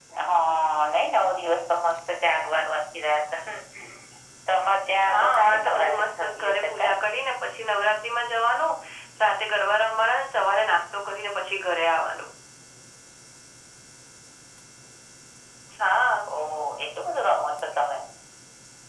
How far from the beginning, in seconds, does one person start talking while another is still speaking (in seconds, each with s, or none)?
5.1 s